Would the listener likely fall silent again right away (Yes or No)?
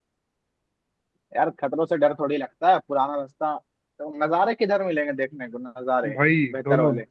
No